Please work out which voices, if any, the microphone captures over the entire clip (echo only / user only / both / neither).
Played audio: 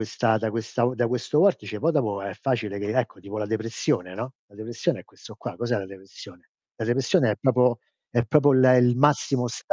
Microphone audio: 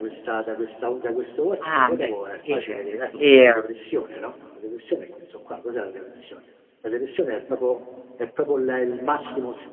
both